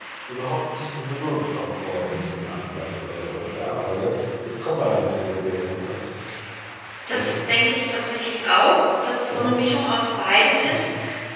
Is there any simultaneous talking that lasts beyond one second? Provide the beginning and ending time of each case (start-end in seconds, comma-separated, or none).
none